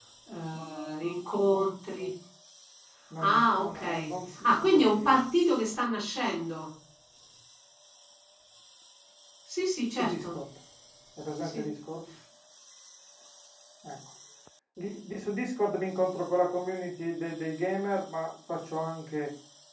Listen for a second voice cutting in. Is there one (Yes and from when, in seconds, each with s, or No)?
Yes, from 3.2 s